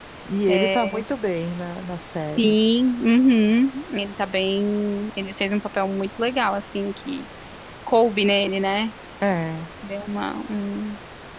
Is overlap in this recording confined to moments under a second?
Yes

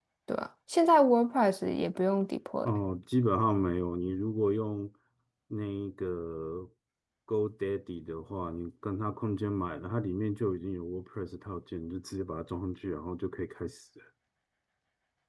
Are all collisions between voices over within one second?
Yes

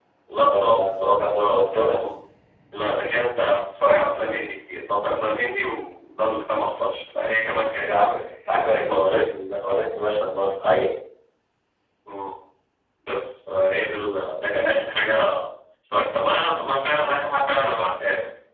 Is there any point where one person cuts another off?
Yes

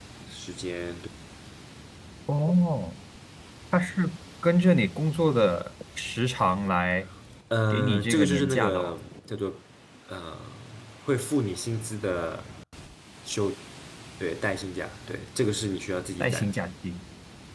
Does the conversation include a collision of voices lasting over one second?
Yes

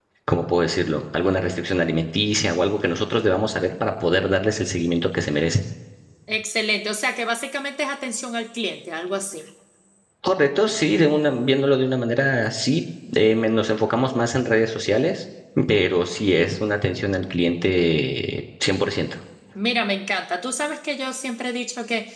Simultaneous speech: No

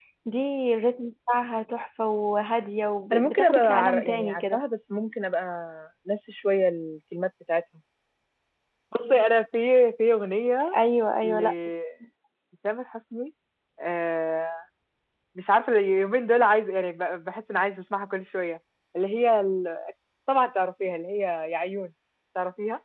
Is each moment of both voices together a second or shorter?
No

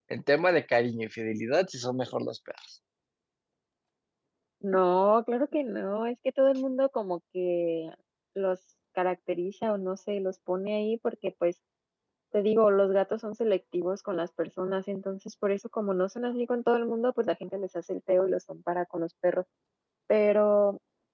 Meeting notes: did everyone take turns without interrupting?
Yes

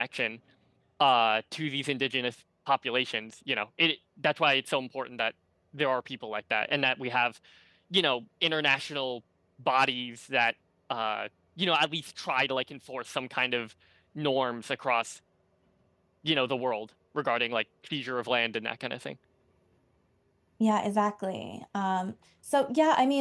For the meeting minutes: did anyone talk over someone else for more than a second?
No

